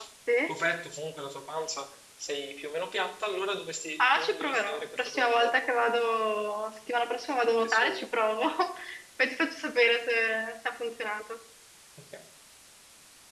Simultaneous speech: Yes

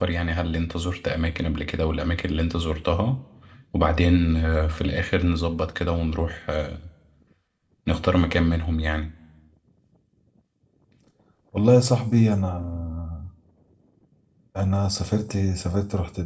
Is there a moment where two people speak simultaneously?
No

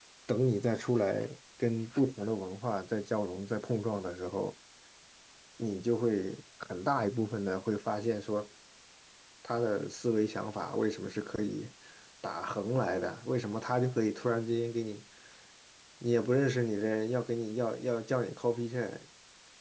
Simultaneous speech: No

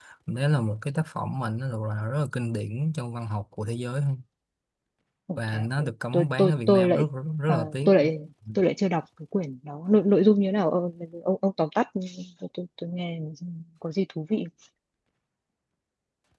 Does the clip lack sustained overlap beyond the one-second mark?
No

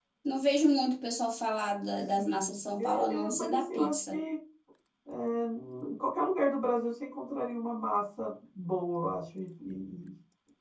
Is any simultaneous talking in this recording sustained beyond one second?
Yes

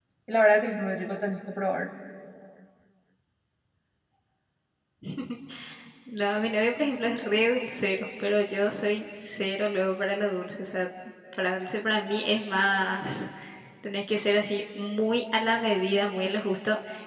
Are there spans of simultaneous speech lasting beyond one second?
No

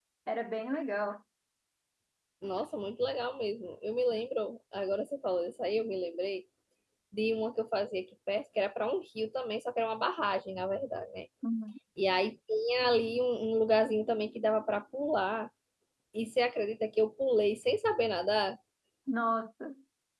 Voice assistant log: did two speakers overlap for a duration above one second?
No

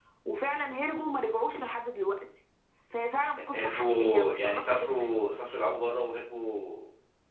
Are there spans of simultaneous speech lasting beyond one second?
Yes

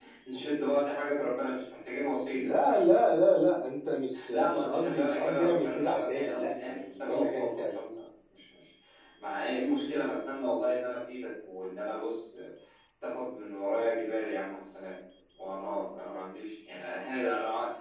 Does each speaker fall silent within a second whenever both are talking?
No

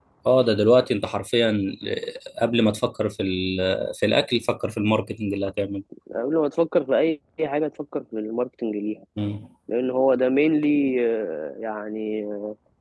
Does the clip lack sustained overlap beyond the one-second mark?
Yes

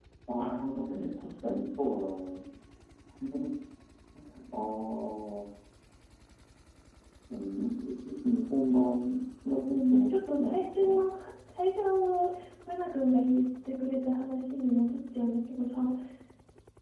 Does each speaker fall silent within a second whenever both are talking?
No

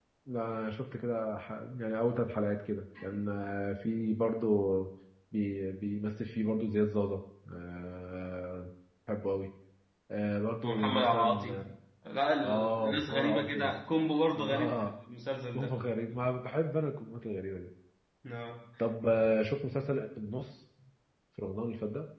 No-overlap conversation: No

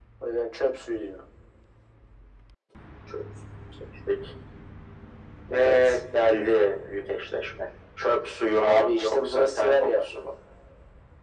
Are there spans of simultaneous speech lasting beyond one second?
Yes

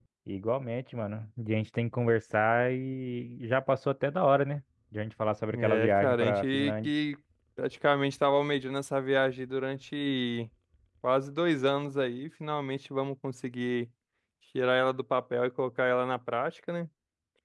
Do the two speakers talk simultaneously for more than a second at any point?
Yes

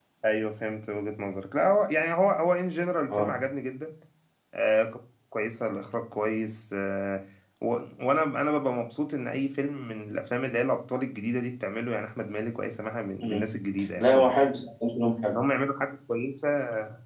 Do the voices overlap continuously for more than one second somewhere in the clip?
No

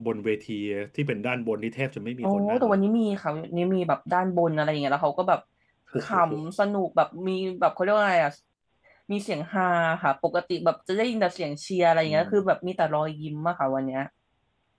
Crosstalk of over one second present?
No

